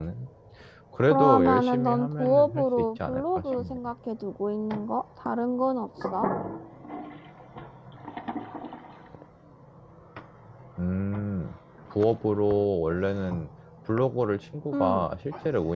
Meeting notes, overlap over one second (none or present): present